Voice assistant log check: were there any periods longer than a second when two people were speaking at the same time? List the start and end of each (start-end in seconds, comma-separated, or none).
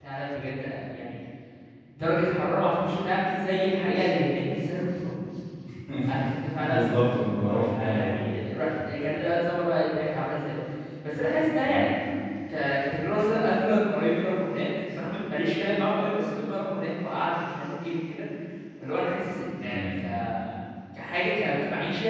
6.6-8.2